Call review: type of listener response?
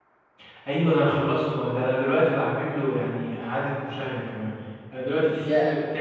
listening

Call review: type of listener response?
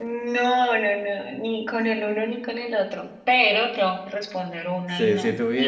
taking over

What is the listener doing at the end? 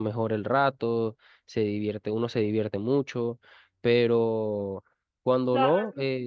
taking over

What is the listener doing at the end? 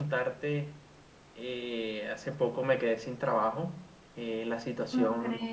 listening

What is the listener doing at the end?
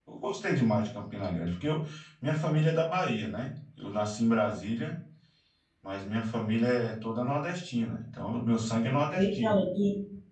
taking over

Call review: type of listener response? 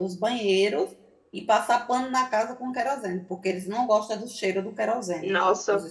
listening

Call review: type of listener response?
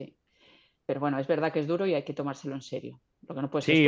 taking over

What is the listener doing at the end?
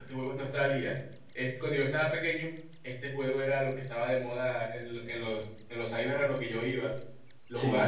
listening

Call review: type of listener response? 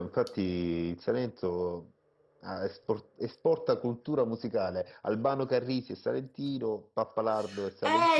taking over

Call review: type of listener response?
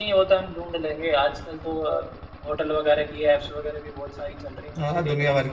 taking over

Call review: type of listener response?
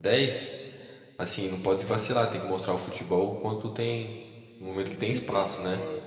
taking over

